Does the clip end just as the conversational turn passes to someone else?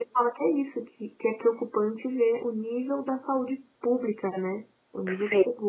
No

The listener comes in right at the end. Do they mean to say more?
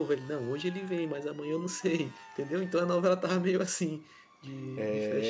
Yes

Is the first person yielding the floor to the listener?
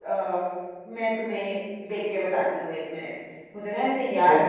No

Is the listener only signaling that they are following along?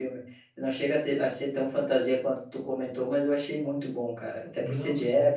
Yes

